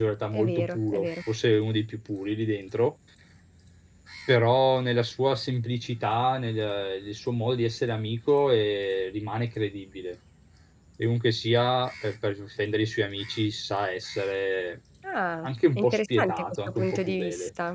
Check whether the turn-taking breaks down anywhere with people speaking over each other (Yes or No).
Yes